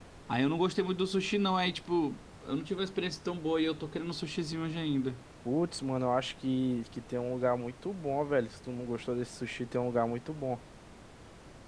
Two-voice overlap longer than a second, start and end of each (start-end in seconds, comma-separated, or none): none